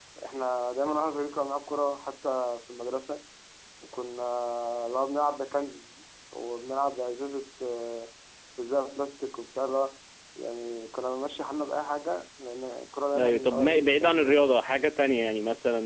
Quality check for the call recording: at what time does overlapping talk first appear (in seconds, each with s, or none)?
13.1 s